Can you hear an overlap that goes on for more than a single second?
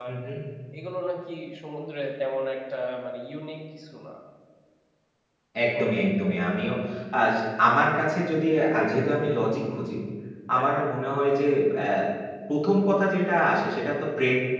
No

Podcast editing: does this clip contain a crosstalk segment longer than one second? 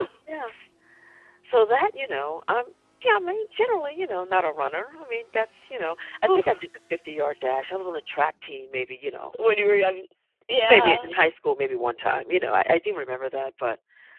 No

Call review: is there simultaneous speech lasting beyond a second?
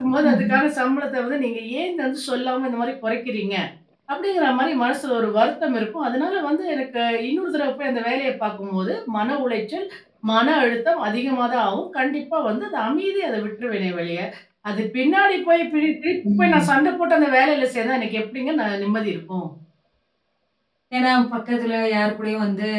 No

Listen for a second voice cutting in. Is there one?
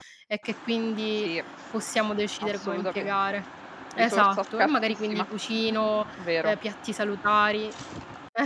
Yes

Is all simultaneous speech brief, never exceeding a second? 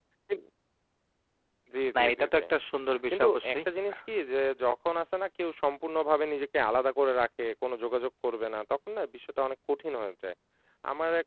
Yes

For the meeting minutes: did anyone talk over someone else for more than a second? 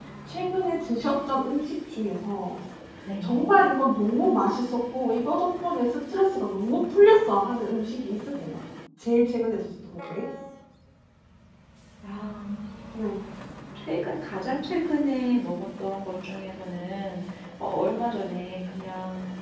No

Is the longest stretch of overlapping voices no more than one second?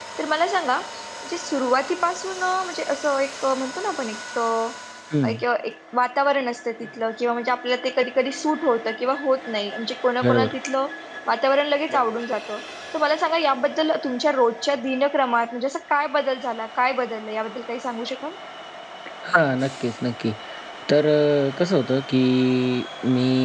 Yes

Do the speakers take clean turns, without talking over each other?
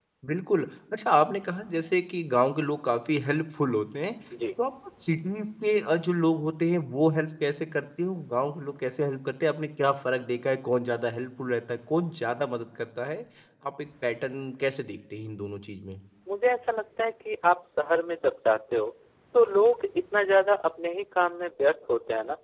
Yes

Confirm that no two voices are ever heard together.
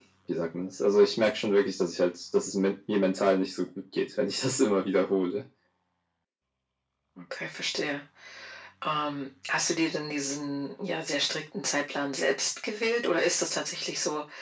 Yes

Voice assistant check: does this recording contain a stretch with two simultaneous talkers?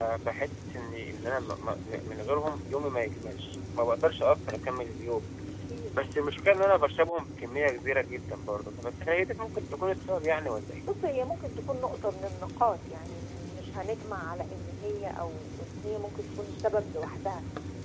No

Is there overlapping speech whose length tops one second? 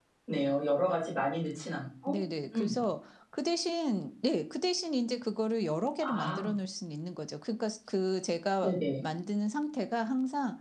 No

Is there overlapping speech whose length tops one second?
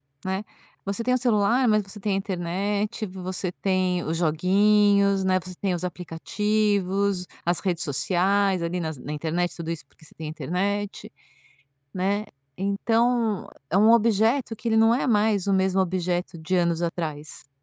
No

